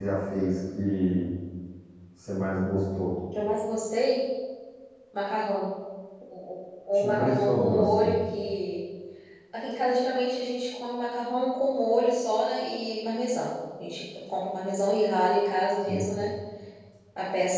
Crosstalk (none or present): present